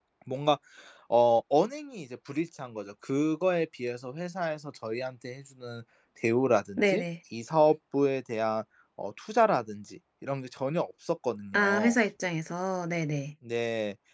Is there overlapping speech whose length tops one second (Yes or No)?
No